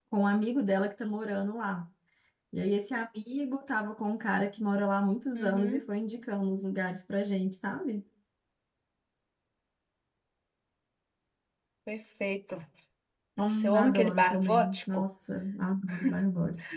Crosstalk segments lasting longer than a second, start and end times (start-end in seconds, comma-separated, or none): 13.4-15.0